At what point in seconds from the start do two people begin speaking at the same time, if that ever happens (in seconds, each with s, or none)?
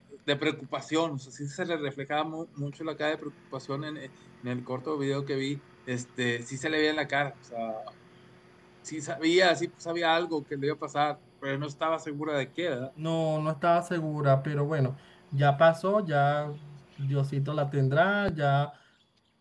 none